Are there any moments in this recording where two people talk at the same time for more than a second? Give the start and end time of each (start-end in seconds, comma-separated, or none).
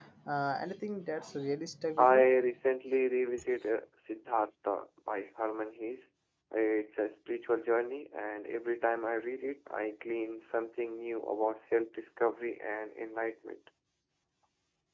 none